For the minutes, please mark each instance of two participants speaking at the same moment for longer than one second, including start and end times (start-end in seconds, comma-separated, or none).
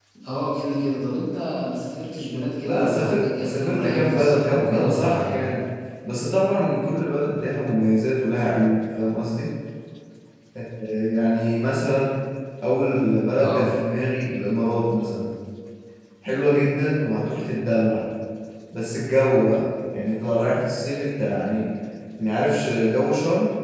2.6-5.5